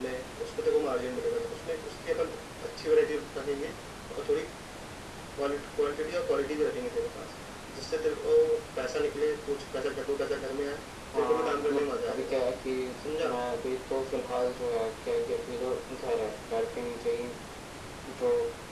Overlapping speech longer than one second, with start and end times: 11.2-12.4

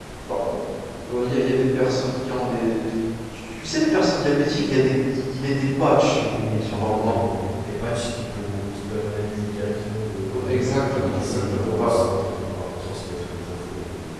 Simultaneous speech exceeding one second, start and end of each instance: 10.3-11.9

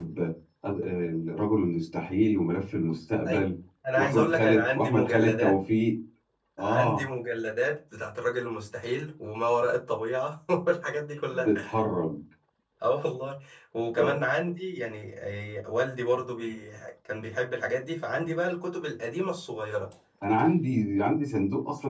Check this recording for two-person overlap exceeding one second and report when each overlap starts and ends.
4.0-5.5

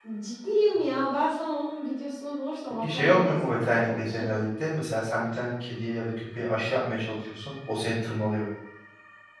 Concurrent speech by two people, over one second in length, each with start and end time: 2.8-4.3

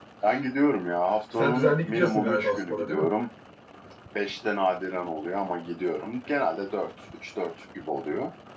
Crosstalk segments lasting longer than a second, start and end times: 1.4-3.1

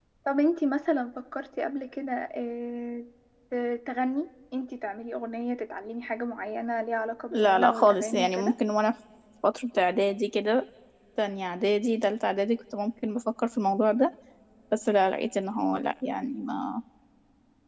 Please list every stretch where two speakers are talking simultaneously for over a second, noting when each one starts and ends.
7.3-8.6

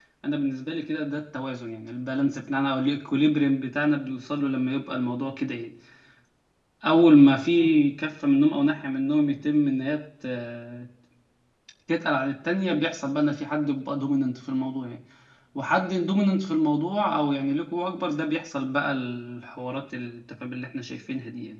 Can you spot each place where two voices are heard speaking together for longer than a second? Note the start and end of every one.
none

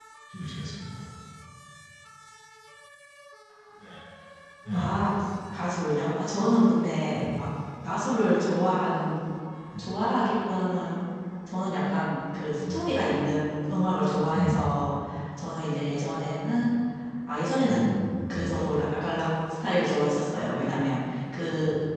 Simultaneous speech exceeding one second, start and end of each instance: none

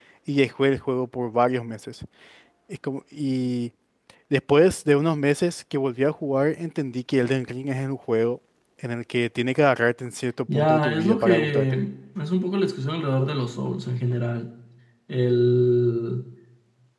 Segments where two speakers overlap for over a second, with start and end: 10.5-11.8

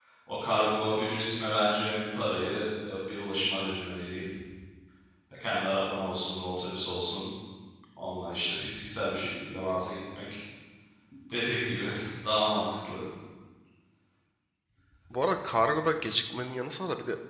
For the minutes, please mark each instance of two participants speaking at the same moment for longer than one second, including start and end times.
none

